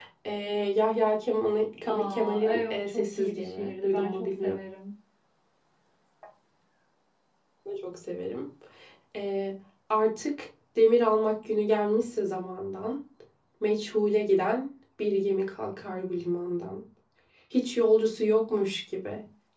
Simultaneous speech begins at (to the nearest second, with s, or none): 2 s